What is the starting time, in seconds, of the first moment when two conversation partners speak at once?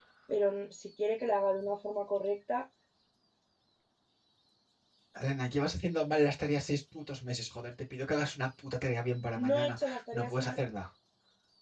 9.4 s

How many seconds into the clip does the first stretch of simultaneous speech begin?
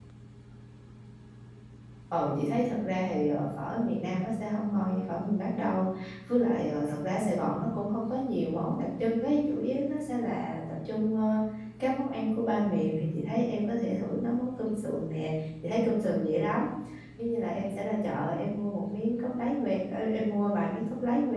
none

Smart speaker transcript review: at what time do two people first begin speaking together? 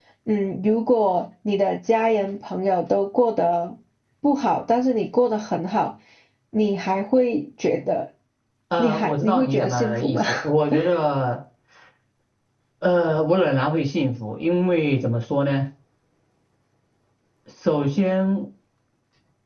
8.8 s

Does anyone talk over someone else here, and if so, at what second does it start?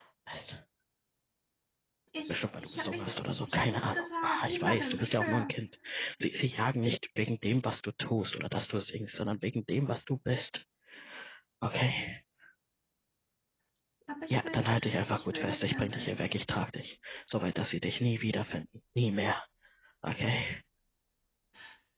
2.3 s

